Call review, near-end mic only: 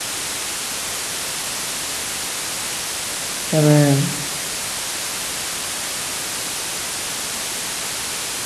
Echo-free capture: Yes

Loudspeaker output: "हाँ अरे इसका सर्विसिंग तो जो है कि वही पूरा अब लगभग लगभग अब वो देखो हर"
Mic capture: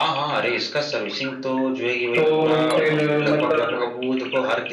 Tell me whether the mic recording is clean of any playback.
No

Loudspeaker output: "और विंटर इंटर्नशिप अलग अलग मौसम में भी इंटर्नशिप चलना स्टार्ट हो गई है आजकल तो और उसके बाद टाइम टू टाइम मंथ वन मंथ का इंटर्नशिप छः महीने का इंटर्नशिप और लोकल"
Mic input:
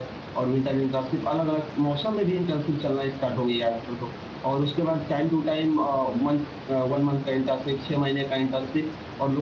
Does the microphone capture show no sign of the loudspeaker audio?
No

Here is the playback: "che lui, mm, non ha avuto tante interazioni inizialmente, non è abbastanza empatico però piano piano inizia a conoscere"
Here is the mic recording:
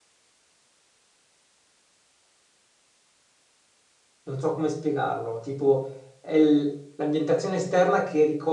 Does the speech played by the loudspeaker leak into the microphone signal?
No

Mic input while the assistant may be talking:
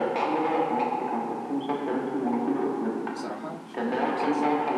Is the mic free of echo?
No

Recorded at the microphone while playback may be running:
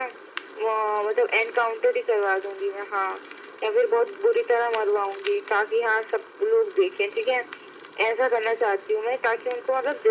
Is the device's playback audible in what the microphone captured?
Yes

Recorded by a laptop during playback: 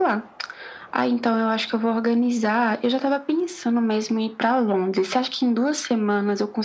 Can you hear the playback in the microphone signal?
Yes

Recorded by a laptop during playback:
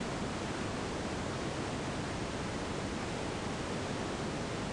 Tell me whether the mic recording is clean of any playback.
Yes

